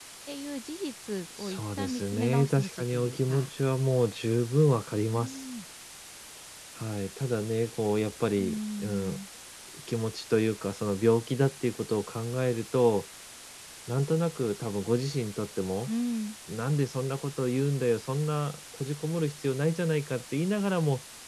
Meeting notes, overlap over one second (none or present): present